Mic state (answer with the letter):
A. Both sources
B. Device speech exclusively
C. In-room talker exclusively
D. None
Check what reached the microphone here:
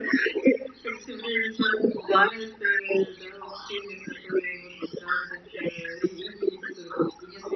B